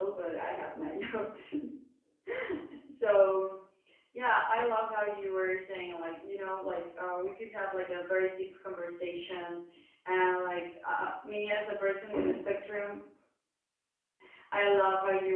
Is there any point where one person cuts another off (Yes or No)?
No